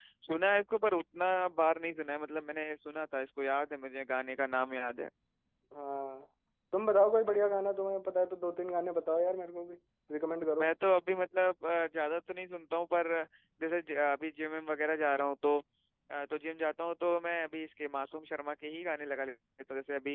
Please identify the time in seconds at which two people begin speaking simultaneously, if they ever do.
none

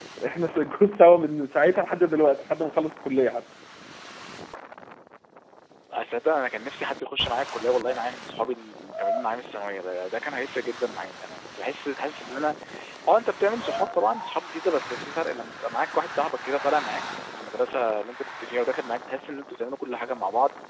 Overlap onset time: none

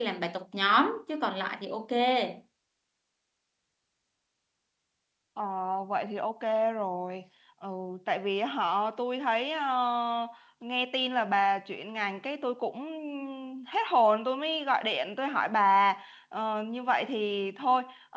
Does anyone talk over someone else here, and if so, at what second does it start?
none

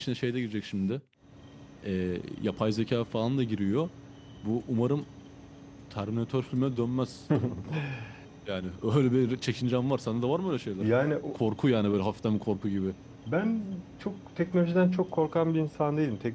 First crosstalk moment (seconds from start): none

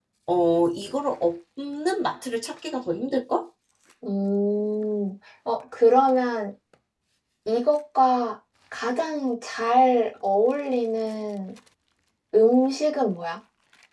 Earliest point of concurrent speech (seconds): none

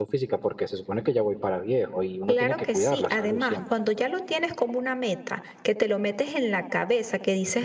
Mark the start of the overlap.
2.3 s

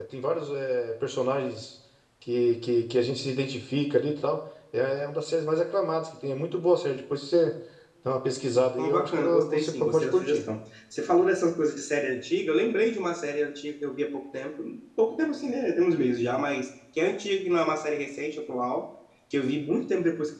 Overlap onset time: 8.8 s

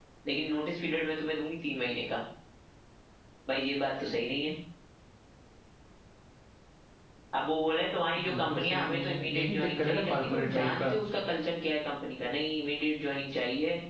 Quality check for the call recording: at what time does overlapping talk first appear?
8.1 s

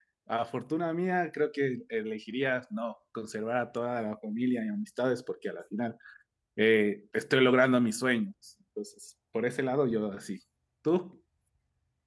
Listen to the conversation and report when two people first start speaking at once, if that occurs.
none

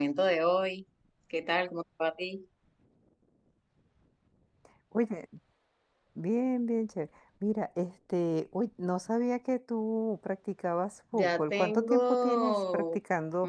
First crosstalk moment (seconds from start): 11.1 s

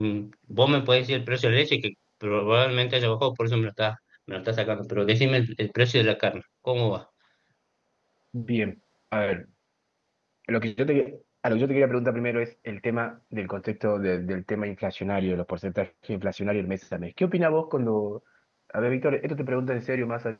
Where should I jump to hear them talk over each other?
none

